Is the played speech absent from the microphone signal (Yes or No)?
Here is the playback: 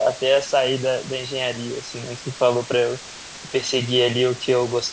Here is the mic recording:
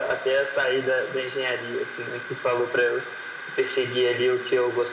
No